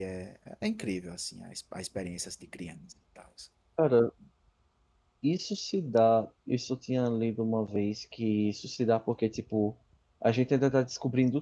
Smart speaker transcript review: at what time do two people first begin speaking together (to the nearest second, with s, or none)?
none